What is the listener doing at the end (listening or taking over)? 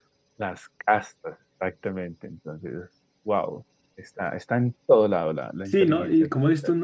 taking over